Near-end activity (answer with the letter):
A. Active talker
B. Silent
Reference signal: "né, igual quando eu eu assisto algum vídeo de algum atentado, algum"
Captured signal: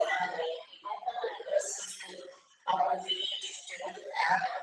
B